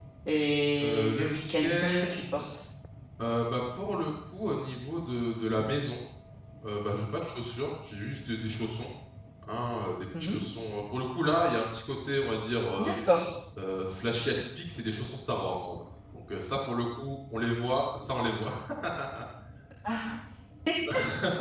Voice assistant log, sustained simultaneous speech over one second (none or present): present